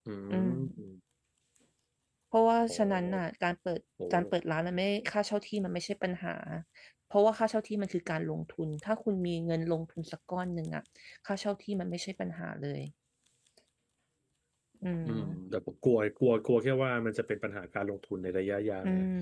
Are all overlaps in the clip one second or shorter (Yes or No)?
Yes